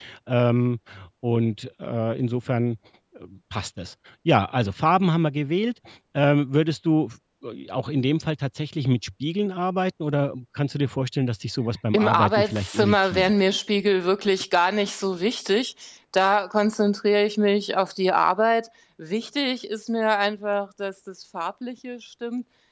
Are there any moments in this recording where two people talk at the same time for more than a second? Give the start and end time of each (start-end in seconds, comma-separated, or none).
11.9-13.3